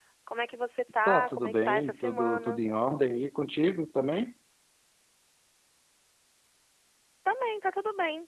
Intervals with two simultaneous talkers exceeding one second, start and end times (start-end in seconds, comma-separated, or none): 1.0-2.6